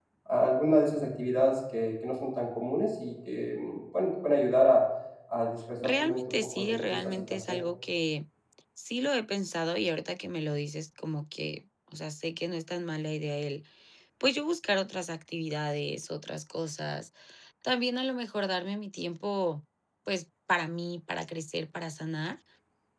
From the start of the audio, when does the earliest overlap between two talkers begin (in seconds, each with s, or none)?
5.8 s